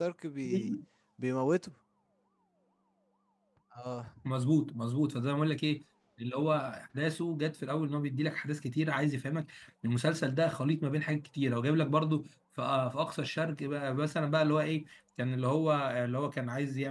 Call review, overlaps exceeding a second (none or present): none